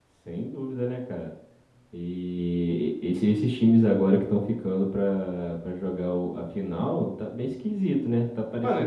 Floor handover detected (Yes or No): Yes